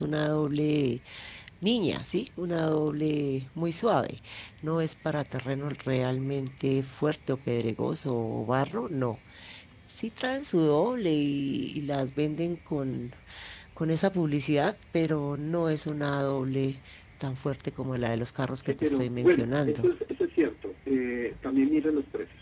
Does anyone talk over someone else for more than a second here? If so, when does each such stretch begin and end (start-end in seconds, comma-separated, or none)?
18.6-19.9